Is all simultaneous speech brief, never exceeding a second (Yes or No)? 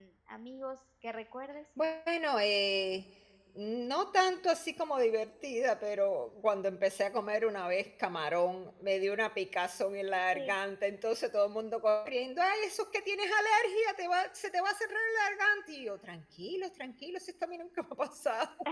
Yes